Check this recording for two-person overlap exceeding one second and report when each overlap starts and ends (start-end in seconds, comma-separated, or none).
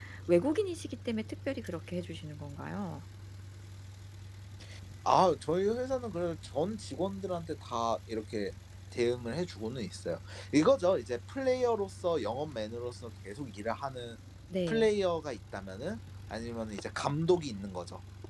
none